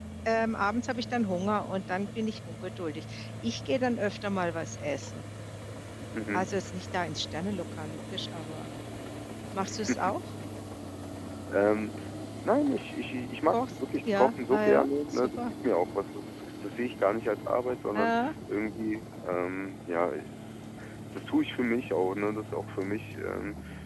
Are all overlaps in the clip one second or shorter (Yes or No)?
No